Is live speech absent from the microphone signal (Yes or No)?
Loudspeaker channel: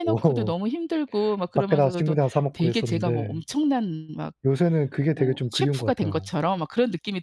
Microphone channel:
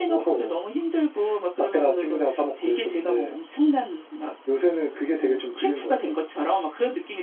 Yes